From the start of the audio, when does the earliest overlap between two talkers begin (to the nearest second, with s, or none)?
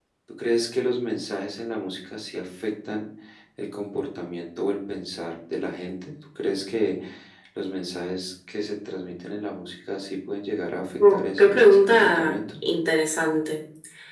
11 s